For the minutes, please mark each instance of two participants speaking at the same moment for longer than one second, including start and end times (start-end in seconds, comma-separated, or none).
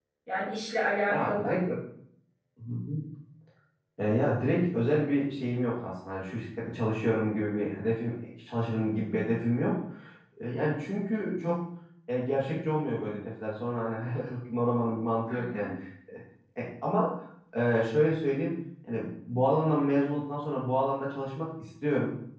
none